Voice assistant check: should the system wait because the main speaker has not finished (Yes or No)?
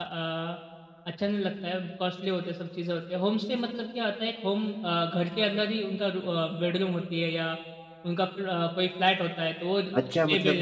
No